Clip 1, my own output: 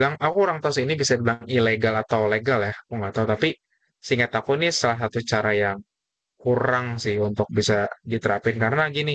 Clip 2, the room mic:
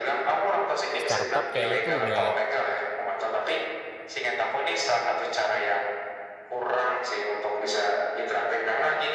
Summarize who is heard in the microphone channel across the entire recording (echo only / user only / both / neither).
both